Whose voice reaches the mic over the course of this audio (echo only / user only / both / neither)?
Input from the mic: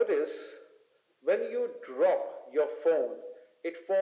echo only